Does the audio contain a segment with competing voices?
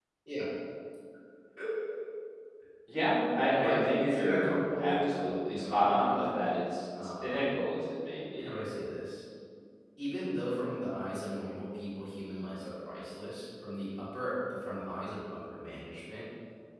Yes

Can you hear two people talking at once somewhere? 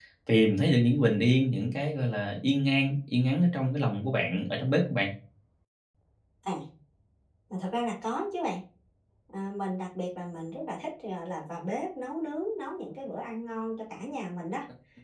No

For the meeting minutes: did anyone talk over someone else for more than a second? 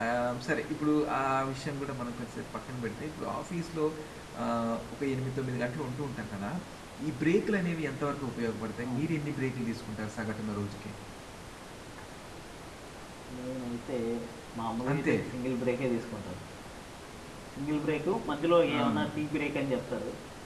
No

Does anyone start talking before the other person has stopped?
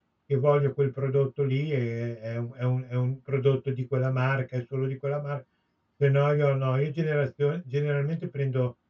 No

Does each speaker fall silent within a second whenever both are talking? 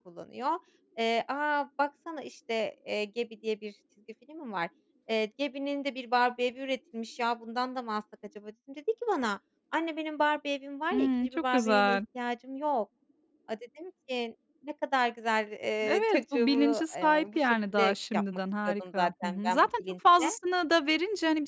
No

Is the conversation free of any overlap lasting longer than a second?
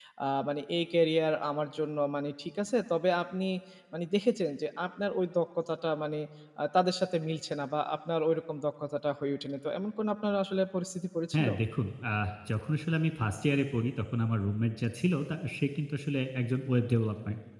Yes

